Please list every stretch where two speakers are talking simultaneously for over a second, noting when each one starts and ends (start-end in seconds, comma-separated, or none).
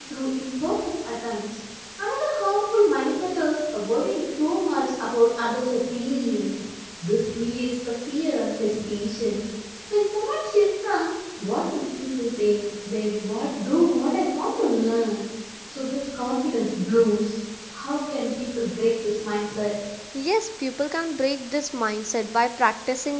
none